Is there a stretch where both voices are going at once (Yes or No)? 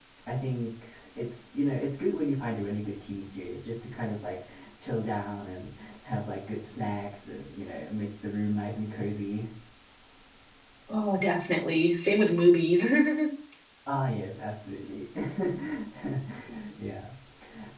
No